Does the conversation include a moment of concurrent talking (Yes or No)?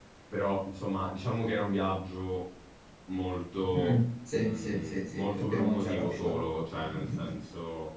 Yes